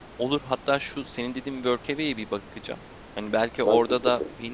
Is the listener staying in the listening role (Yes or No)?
Yes